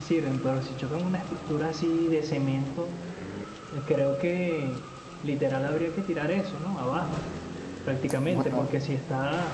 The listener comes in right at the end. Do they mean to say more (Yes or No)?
No